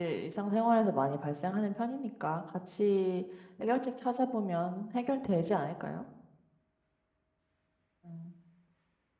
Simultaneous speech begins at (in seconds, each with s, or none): none